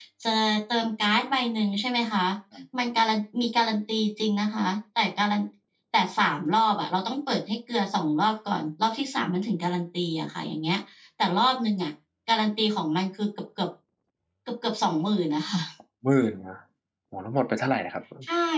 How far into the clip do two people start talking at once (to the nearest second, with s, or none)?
none